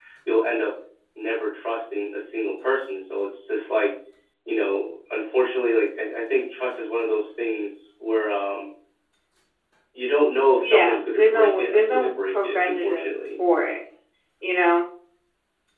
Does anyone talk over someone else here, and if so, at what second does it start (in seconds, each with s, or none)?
10.6 s